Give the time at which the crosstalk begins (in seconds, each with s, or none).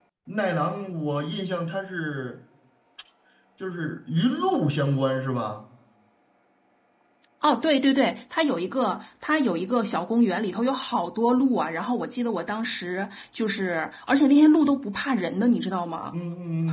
none